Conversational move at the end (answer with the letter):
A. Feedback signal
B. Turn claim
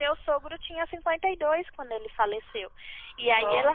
A